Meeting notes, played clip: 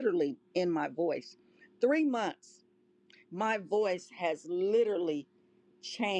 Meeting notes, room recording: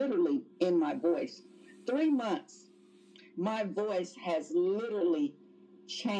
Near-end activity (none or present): none